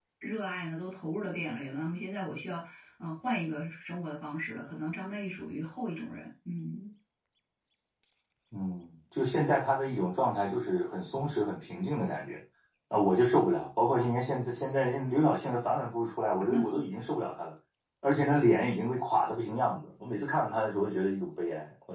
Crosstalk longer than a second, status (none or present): none